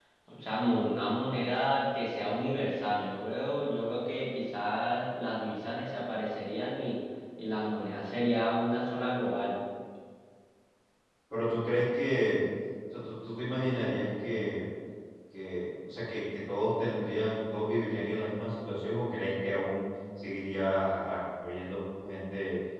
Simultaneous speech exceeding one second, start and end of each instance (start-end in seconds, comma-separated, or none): none